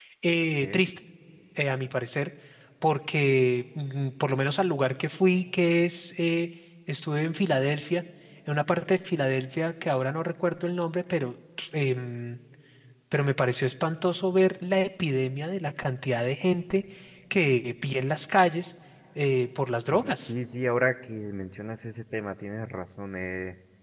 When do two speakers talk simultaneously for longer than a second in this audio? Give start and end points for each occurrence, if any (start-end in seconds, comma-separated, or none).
none